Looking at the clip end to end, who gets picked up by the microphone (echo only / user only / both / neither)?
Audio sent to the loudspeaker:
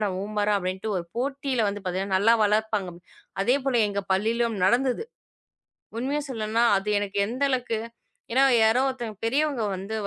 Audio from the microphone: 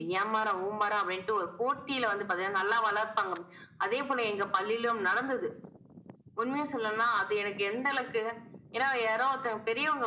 echo only